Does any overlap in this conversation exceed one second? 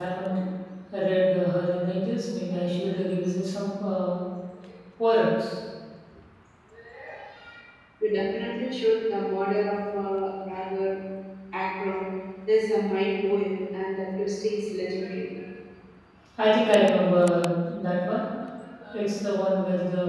No

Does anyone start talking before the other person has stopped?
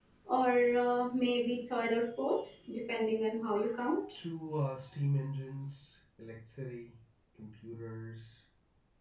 No

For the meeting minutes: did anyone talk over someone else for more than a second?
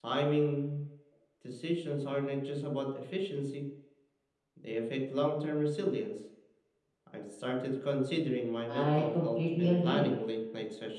Yes, from 8.7 s

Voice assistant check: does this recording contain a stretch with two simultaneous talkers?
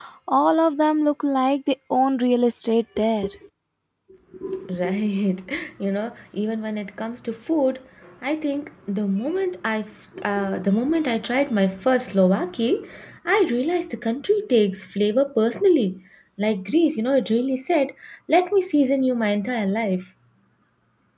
No

